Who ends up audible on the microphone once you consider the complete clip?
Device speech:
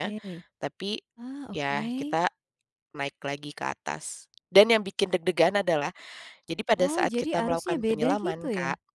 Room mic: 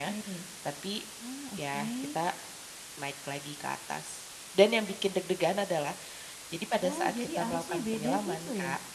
echo only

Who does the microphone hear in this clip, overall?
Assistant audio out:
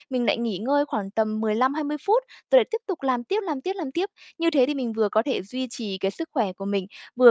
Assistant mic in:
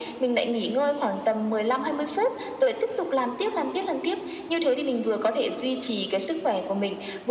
echo only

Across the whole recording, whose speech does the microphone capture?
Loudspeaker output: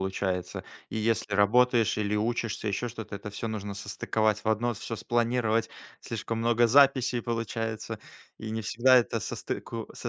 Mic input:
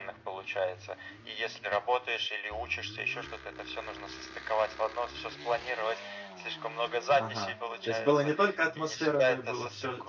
both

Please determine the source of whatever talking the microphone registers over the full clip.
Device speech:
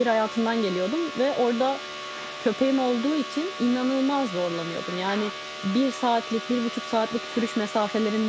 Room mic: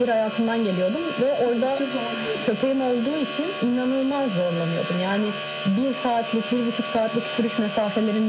both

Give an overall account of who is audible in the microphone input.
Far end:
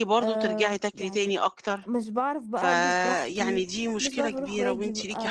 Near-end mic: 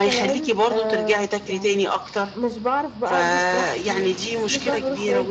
echo only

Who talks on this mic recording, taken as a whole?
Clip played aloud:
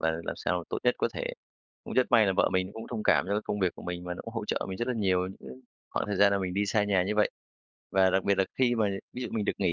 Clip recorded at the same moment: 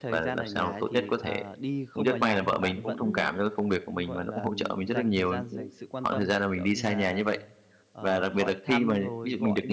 both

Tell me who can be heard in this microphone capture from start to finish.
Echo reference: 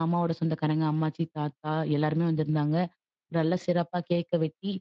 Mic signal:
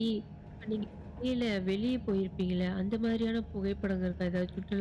user only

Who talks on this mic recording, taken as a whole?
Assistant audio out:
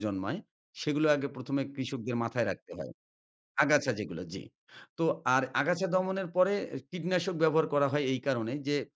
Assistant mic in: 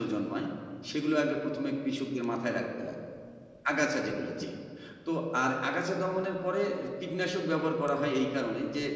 echo only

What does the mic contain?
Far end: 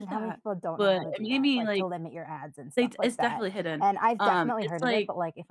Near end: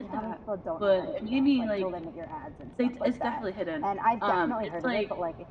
echo only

